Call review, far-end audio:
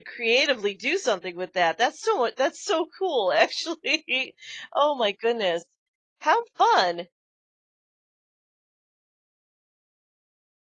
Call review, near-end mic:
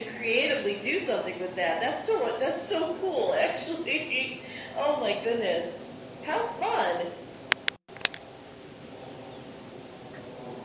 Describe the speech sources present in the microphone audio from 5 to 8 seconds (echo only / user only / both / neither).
echo only